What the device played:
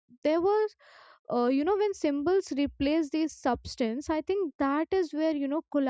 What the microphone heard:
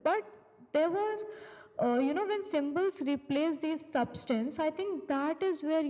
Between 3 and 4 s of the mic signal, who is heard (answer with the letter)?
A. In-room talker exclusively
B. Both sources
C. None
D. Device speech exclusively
D